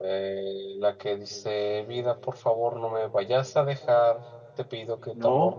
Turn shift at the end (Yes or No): No